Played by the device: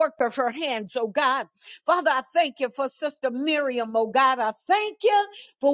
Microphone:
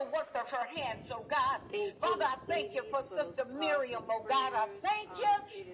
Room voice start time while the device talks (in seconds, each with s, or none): 1.7 s